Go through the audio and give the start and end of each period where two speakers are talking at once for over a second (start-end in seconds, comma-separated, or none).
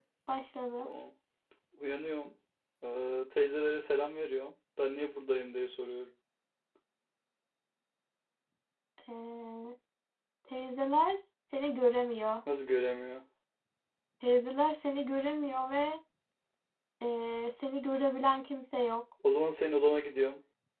none